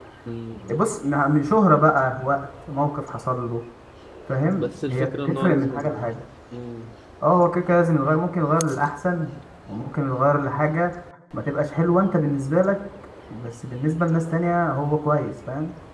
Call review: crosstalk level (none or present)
present